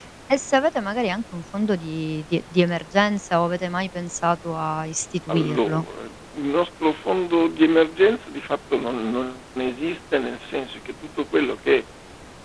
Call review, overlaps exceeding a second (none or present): none